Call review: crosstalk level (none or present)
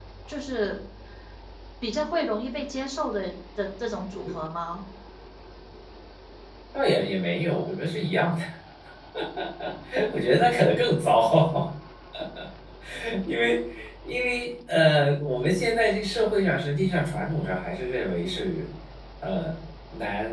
none